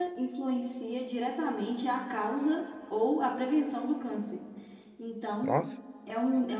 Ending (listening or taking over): listening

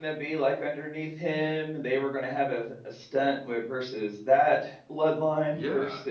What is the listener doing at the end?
taking over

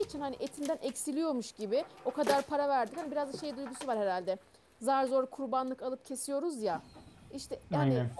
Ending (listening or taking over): listening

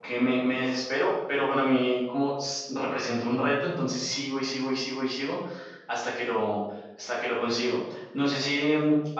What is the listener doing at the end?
listening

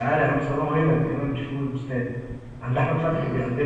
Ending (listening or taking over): listening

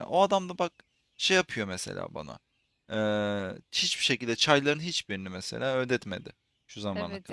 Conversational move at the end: taking over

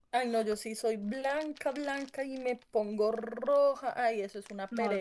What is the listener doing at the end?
taking over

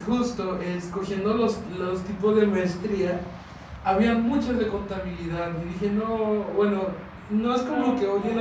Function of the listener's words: listening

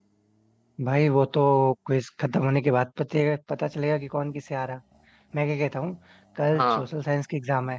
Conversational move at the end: listening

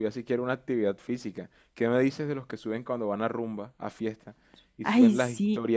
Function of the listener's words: listening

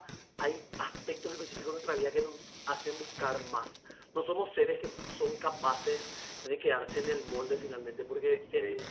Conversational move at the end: listening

